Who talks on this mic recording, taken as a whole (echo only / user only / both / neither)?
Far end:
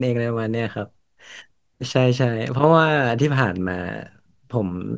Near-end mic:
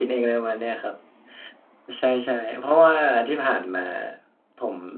echo only